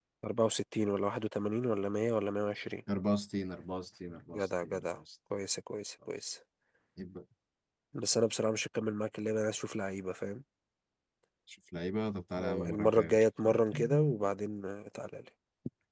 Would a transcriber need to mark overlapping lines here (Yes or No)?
Yes